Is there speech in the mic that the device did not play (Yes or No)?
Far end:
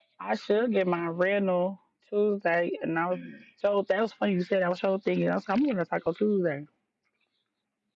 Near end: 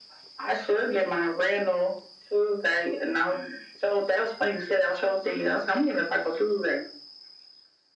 No